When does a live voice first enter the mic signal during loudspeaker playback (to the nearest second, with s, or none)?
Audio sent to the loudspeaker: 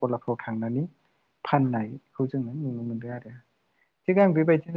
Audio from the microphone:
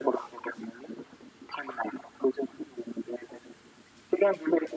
none